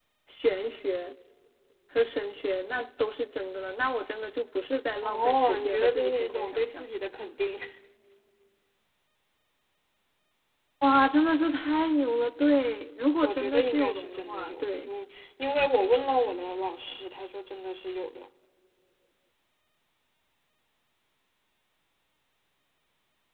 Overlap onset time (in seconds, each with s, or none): 5.0 s